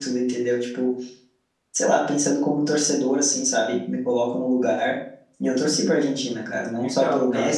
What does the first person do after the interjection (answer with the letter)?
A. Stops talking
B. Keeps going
B